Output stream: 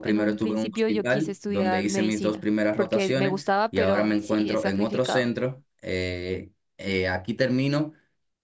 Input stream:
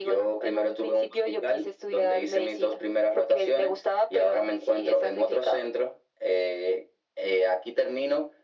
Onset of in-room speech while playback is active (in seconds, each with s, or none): none